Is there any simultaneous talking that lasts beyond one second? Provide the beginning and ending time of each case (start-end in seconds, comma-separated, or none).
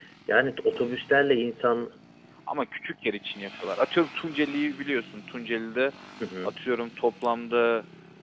none